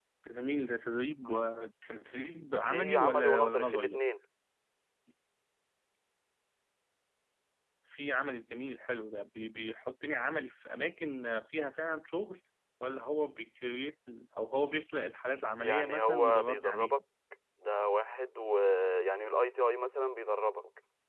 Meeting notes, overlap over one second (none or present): present